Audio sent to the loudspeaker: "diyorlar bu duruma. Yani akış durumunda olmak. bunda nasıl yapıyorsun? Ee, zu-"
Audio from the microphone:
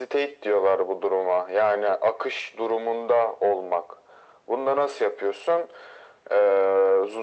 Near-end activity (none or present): none